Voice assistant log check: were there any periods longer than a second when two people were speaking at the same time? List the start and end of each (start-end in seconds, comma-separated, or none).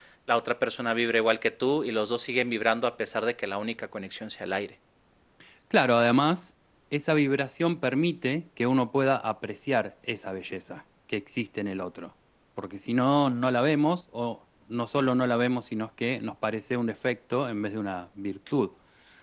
none